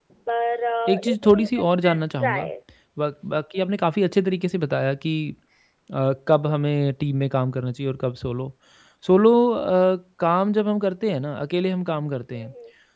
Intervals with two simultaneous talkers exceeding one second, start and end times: 0.9-2.5

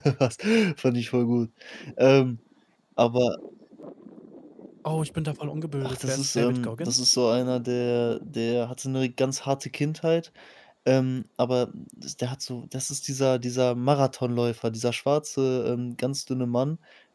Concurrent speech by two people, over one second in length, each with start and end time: 5.8-7.1

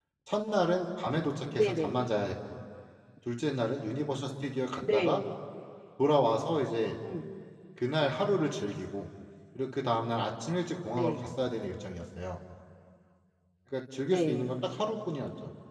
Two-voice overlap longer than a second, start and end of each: none

